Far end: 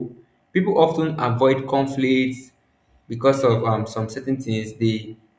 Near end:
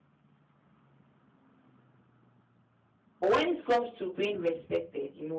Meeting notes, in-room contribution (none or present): present